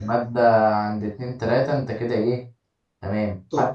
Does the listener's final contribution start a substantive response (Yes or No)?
No